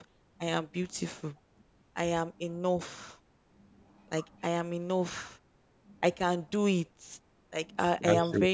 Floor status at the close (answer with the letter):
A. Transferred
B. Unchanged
B